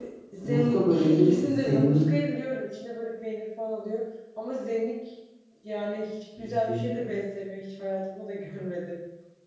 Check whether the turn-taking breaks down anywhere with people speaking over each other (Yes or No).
Yes